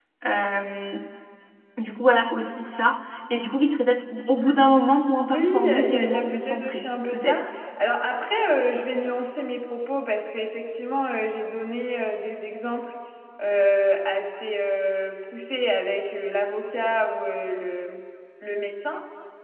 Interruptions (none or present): present